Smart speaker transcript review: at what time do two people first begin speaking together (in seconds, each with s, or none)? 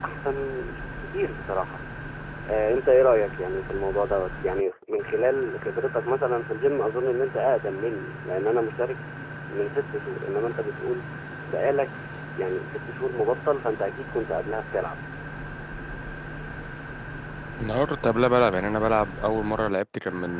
none